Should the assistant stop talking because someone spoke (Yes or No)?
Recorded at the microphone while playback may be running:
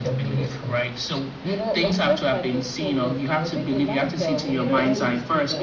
Yes